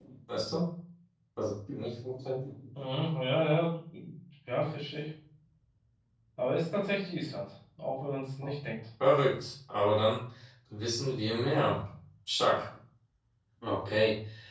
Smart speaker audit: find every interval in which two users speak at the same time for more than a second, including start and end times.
none

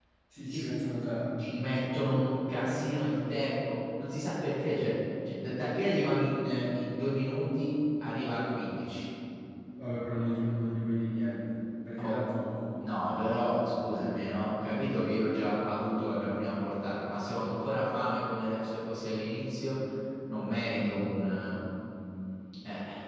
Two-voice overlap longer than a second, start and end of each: none

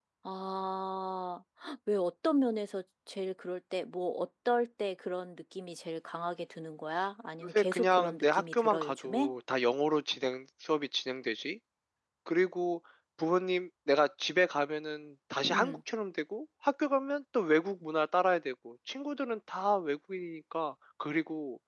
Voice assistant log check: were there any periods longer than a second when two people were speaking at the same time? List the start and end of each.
7.4-9.3

